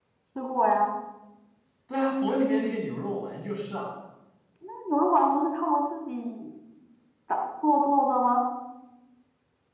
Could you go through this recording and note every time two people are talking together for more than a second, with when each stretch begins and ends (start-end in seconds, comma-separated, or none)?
none